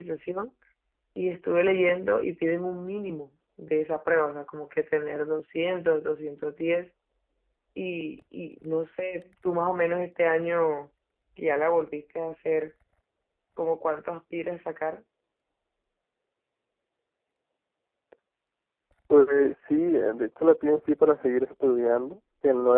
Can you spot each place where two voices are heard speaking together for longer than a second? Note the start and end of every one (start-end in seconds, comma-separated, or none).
none